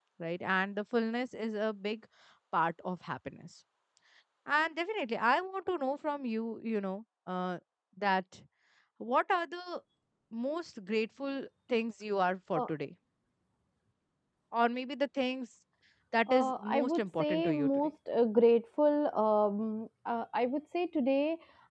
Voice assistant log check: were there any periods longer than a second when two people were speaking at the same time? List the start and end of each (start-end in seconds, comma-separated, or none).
16.3-17.9